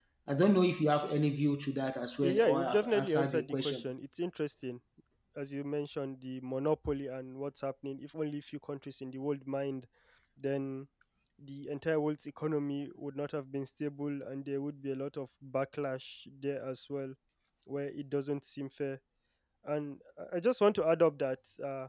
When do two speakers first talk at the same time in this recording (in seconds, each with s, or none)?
2.2 s